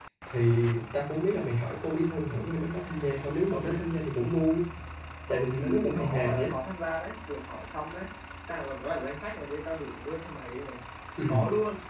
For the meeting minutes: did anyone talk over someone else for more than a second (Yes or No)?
Yes